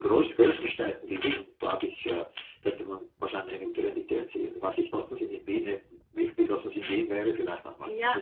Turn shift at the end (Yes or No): Yes